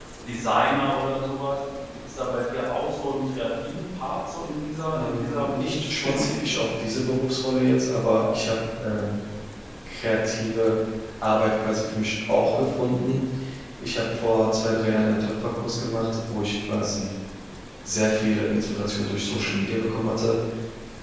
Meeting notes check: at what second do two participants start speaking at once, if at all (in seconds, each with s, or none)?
4.9 s